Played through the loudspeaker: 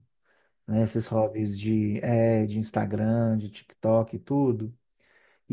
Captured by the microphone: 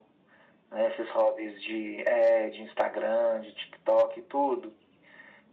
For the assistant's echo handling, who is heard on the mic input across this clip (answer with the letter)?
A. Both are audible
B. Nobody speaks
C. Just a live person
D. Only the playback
D